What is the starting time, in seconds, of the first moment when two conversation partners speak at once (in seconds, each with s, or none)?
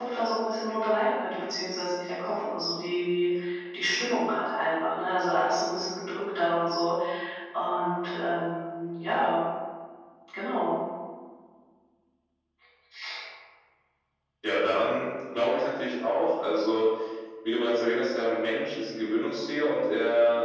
none